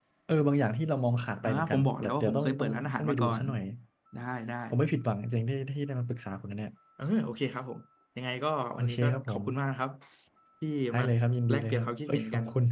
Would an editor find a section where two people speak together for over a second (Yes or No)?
Yes